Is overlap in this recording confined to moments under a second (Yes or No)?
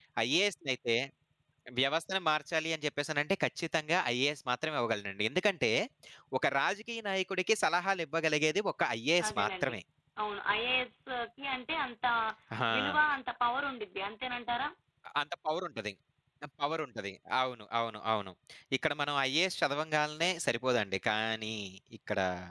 Yes